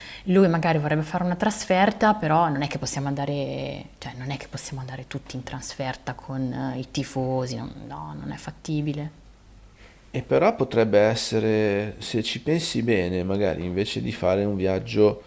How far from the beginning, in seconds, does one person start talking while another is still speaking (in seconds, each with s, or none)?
none